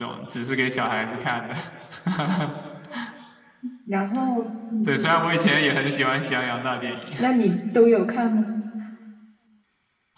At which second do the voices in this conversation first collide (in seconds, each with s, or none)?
none